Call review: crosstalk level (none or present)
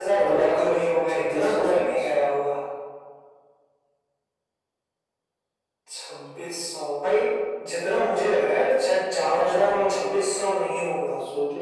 present